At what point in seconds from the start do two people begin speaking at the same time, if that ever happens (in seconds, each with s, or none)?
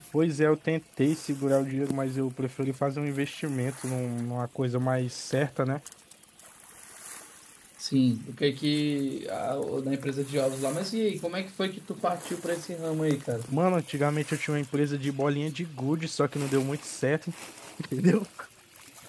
none